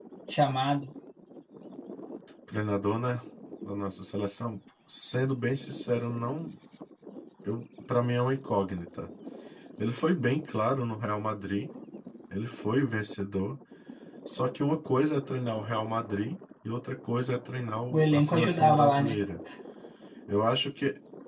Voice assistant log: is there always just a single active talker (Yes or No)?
No